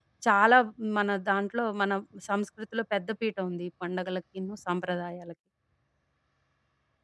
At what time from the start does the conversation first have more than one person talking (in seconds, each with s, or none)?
none